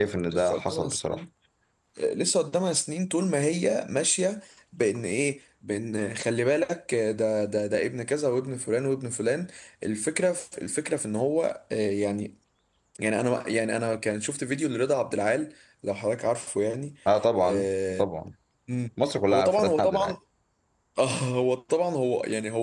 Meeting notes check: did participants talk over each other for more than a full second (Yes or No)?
Yes